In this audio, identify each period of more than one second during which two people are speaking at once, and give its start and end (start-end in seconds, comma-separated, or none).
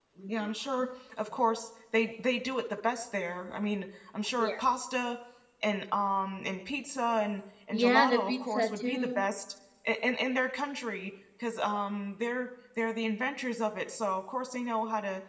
7.7-9.2